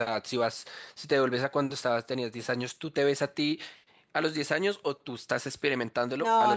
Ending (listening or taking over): taking over